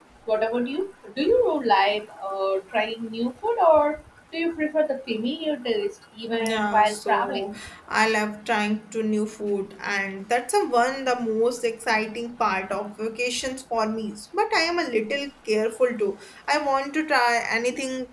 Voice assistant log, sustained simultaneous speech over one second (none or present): present